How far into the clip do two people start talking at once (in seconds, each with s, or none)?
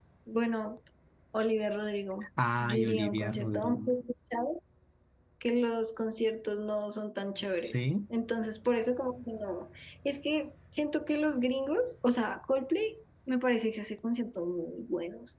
2.6 s